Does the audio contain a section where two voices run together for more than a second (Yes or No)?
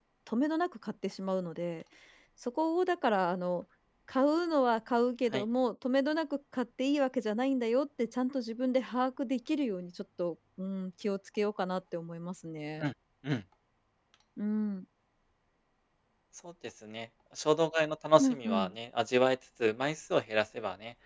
No